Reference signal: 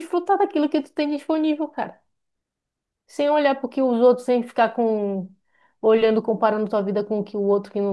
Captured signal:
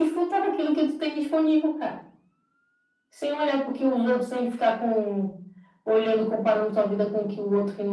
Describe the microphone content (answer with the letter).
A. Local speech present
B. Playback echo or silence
B